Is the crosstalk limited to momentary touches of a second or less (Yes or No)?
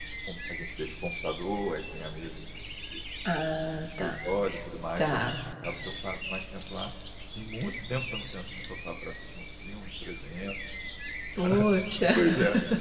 Yes